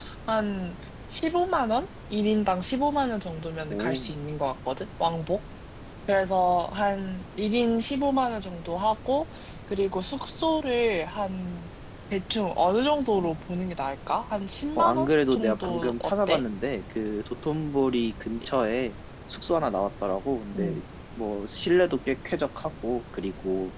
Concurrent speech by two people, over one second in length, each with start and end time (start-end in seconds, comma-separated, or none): 14.8-16.4